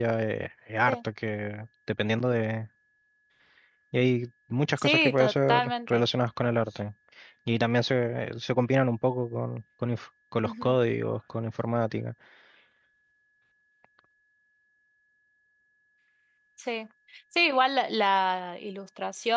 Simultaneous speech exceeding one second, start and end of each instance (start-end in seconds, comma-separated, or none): 4.8-6.0